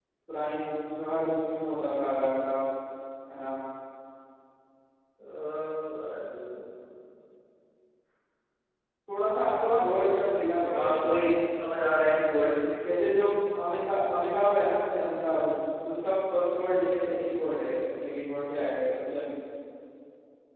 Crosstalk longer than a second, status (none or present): none